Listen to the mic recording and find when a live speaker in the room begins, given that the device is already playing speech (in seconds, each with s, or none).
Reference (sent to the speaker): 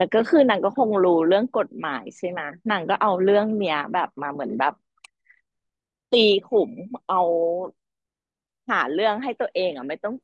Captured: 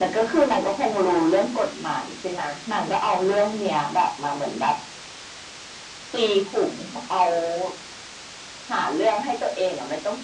none